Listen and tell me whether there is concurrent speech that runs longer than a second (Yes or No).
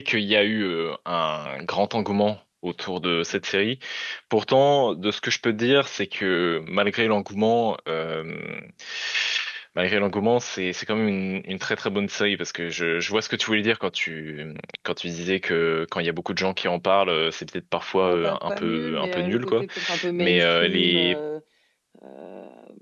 Yes